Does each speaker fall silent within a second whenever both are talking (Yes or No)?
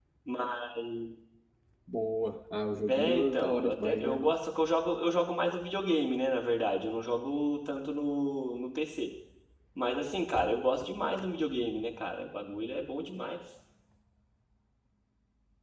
No